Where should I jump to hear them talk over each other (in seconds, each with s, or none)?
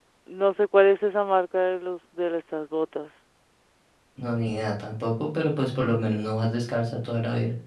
none